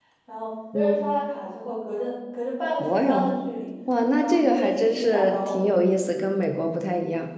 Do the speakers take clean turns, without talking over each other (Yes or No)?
No